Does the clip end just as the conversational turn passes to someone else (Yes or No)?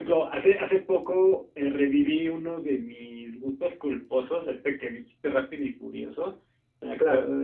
No